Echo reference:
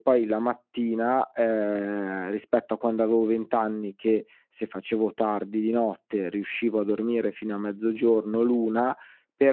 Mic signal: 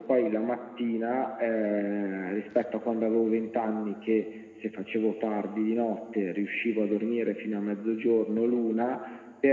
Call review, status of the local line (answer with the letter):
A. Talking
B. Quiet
B